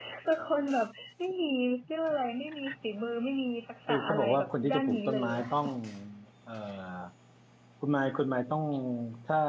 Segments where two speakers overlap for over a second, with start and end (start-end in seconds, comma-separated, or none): 3.9-5.5